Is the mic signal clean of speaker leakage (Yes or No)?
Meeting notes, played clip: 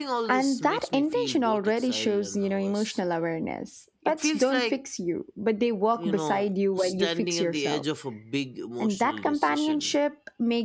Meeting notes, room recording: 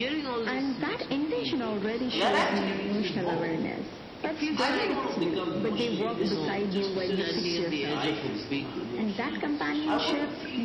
No